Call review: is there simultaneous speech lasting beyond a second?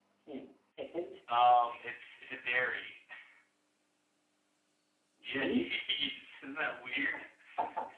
No

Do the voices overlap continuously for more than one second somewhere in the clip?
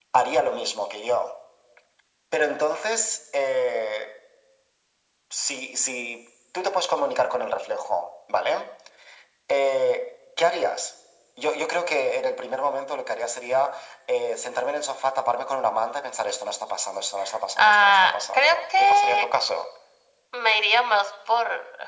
Yes, from 17.6 s

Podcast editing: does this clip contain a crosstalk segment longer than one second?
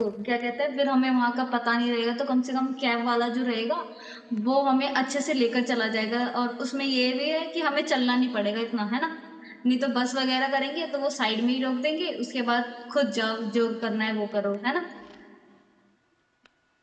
No

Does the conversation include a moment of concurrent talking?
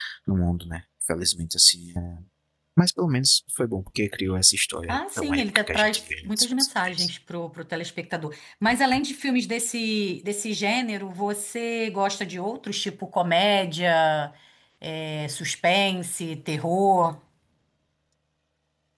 Yes, from 4.9 s

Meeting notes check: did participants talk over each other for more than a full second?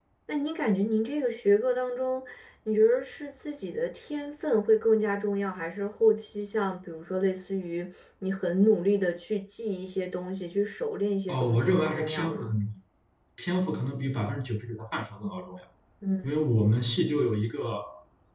Yes, from 11.3 s

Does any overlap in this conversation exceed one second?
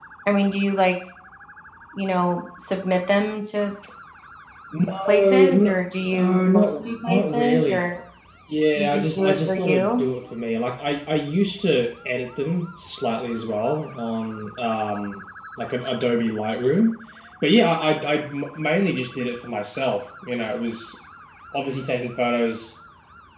Yes, from 5.1 s

